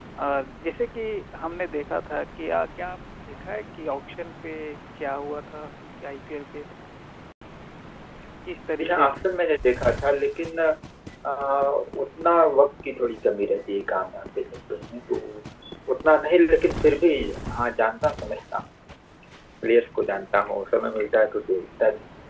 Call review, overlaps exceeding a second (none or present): none